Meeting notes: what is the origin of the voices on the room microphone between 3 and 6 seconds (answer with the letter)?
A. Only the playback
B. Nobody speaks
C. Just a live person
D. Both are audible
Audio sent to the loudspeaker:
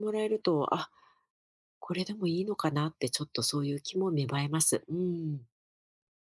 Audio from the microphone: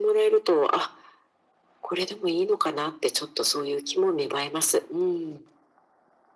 A